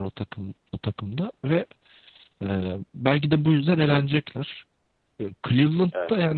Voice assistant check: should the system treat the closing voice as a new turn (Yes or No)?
No